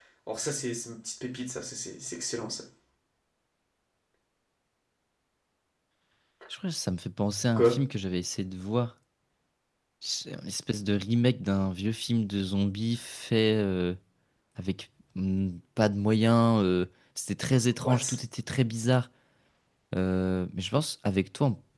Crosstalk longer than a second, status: none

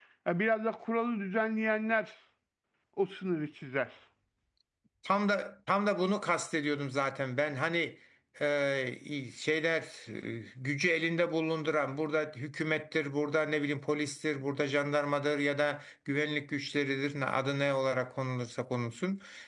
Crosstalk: none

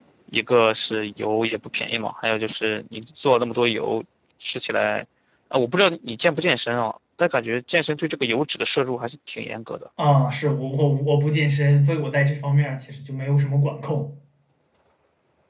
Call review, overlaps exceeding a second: none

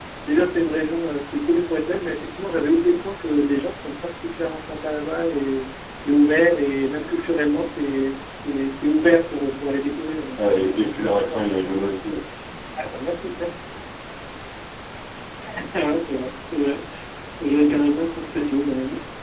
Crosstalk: present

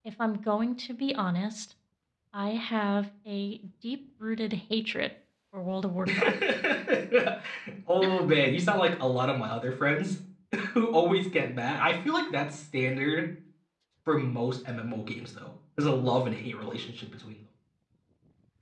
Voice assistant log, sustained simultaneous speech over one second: none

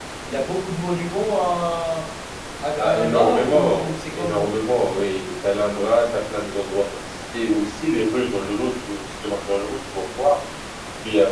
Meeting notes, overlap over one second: present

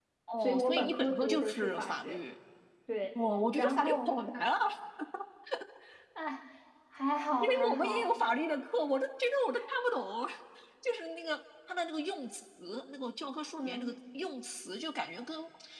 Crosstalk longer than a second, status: present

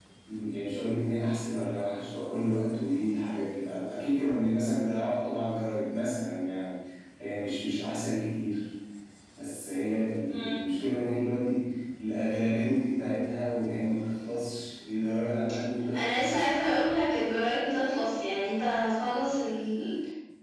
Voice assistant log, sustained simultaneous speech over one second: none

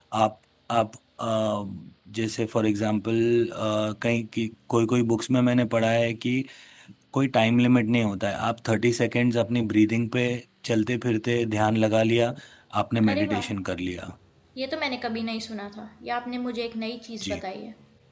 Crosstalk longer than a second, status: none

